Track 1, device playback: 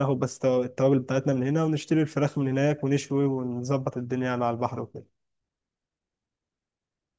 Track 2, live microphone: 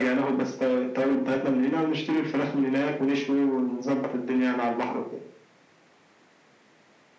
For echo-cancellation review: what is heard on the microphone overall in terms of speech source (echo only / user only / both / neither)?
echo only